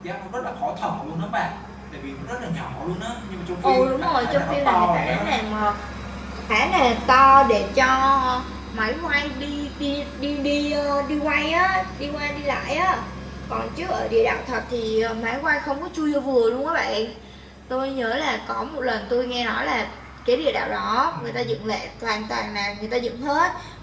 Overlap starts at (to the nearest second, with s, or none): 4 s